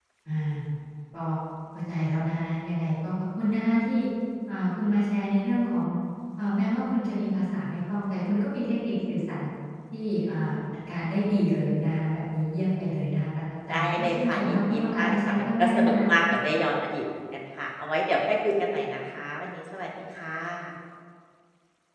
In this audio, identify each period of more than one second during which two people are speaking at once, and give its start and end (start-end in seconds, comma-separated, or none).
13.7-15.9